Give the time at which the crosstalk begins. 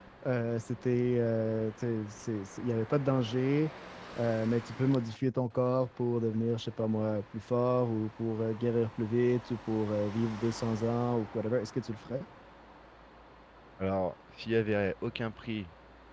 none

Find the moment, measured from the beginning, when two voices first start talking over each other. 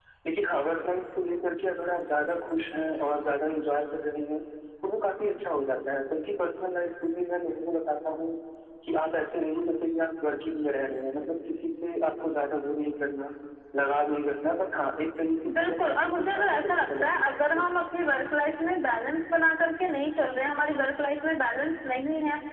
15.5 s

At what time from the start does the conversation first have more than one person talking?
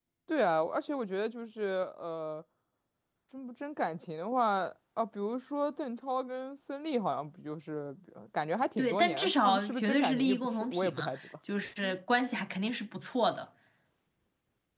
8.8 s

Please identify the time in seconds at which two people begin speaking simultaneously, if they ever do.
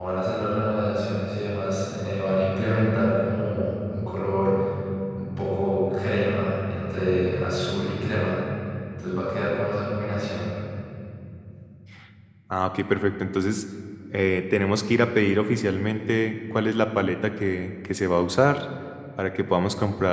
none

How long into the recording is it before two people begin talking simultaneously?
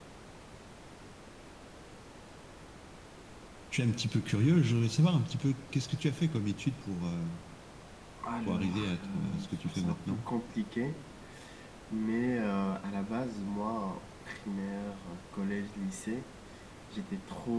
8.4 s

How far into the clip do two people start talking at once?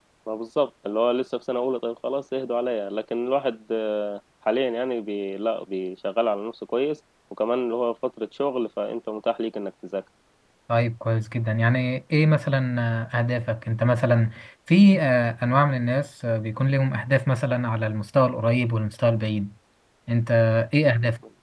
none

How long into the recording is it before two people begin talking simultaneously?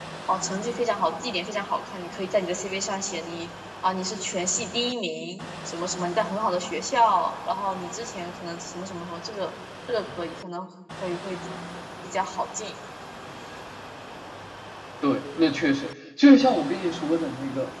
none

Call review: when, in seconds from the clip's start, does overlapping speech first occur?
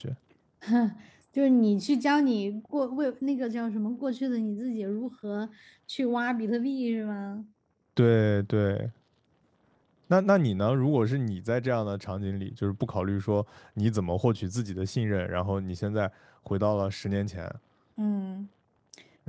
none

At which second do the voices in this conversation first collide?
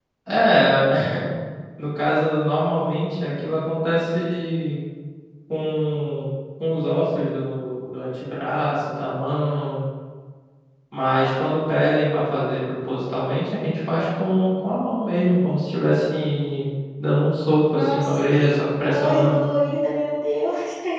17.6 s

